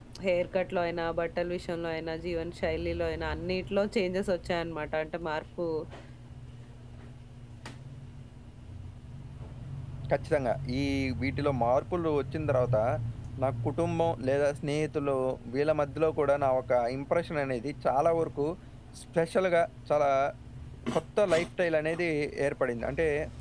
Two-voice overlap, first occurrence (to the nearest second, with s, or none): none